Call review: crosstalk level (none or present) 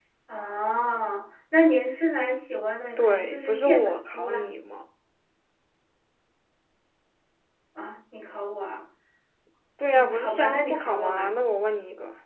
present